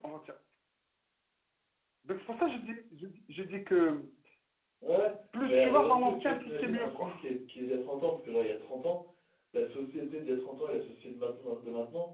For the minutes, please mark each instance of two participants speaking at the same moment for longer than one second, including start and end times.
5.4-7.1

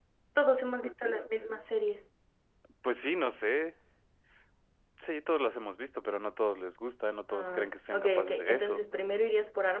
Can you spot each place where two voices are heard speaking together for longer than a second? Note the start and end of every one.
7.3-8.8

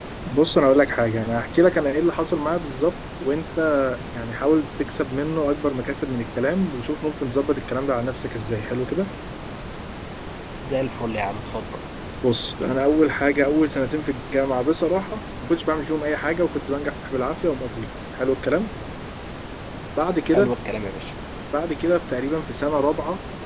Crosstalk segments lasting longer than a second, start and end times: none

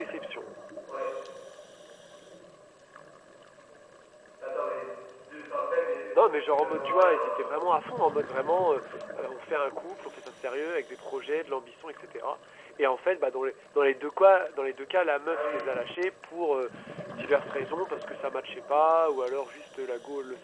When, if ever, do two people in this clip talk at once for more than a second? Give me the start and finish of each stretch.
6.1-7.6

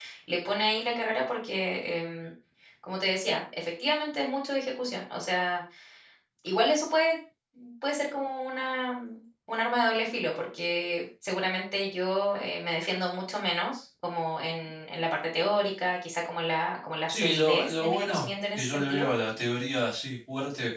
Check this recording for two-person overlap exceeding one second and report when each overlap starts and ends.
17.1-19.1

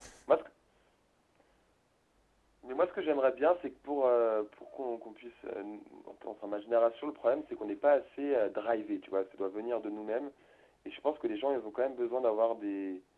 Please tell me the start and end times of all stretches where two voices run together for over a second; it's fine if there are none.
none

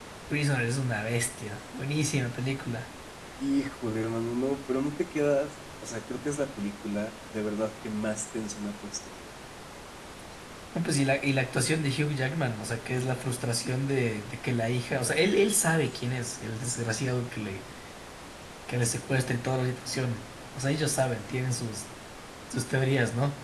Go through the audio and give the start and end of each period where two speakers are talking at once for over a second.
none

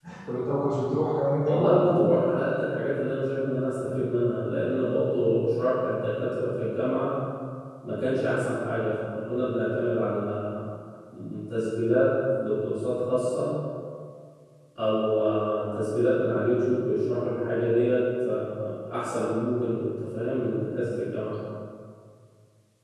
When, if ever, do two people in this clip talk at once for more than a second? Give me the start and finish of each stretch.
none

